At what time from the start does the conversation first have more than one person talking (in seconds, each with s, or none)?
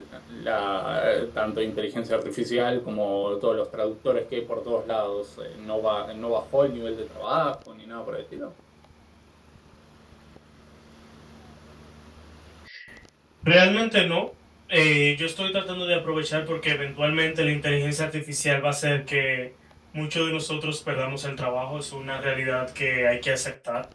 none